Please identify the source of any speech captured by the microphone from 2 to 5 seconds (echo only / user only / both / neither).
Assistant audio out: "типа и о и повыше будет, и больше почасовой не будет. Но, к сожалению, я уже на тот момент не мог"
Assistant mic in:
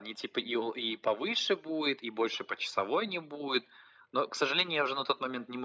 echo only